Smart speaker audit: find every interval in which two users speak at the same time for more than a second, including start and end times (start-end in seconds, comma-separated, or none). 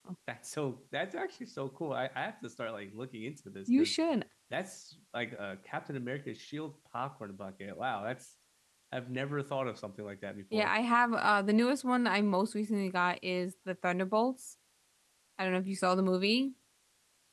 none